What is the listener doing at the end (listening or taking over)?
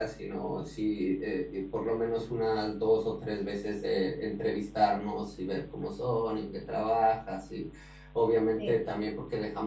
listening